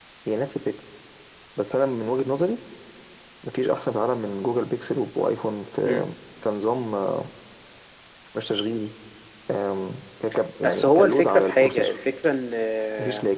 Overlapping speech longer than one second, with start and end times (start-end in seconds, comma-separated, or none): 10.6-12.0